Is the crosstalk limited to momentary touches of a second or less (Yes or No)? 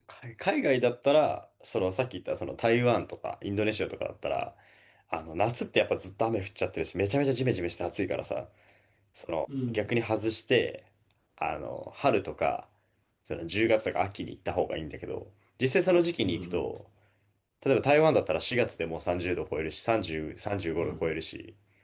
Yes